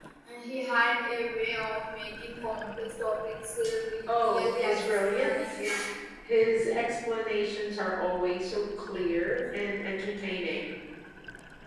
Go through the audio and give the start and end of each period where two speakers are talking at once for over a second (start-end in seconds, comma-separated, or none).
4.1-5.6